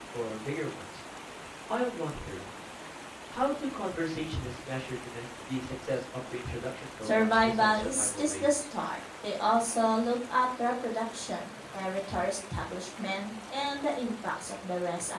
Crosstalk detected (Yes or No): Yes